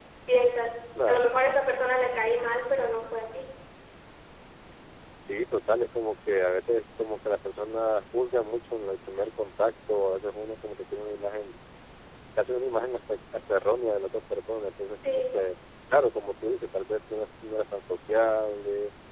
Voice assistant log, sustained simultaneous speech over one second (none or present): none